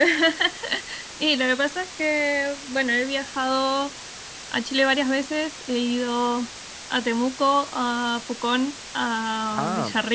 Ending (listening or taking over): listening